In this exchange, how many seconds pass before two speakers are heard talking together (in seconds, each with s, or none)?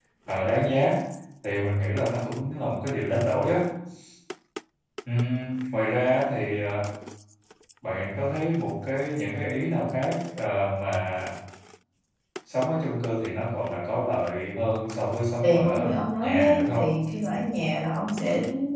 15.4 s